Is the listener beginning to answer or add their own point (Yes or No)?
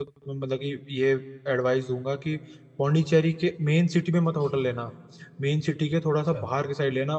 No